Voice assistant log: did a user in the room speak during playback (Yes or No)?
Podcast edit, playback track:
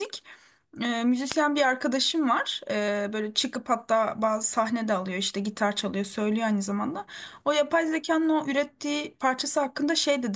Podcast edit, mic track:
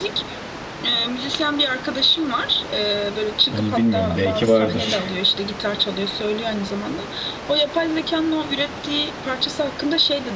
Yes